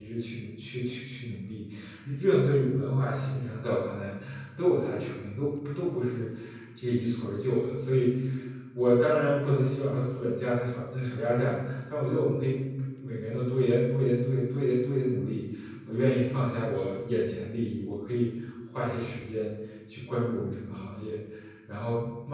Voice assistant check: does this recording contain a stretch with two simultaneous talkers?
No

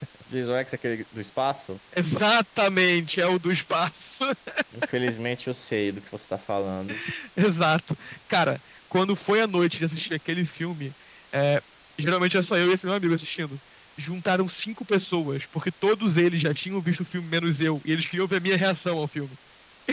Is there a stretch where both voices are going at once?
No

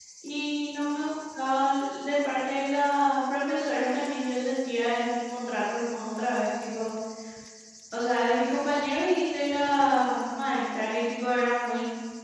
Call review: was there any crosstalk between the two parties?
No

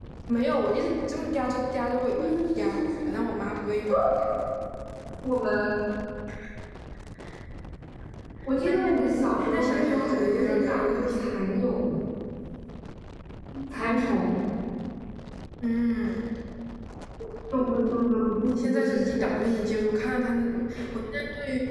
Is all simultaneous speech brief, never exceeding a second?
No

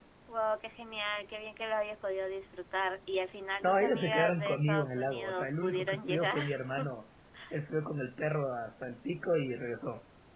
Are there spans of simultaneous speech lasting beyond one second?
Yes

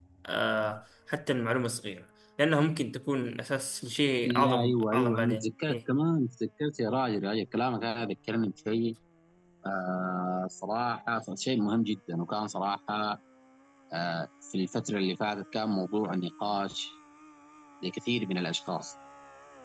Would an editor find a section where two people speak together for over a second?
Yes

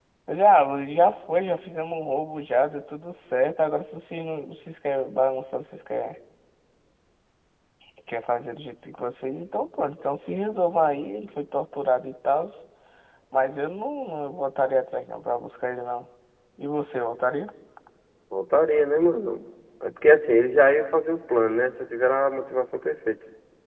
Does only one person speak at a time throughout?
Yes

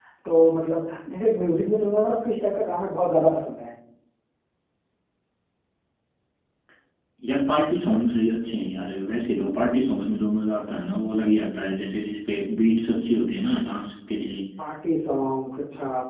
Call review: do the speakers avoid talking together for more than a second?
Yes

